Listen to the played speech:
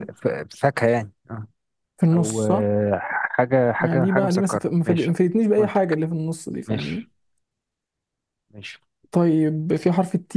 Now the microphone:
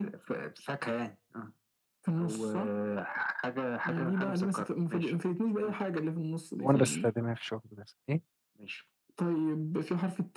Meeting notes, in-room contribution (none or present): present